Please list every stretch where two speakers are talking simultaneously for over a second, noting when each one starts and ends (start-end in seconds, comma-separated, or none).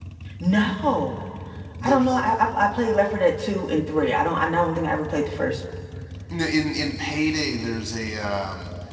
none